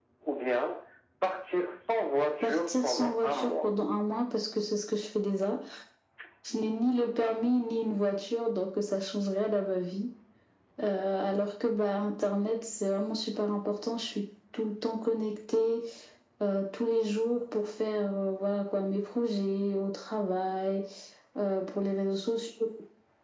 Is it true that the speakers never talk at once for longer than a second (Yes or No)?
No